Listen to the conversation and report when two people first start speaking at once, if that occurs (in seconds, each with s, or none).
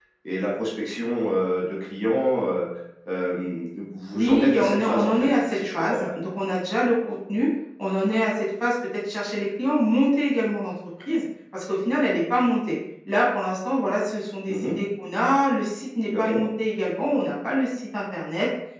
4.1 s